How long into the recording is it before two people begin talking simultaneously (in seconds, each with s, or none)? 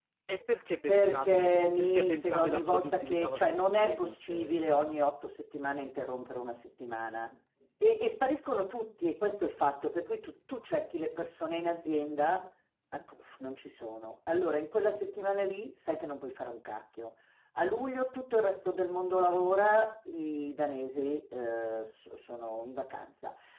0.9 s